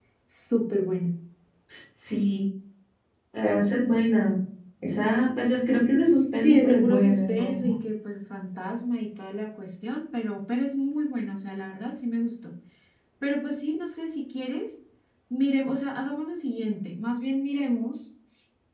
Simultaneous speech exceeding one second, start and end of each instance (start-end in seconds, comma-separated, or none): 6.4-7.7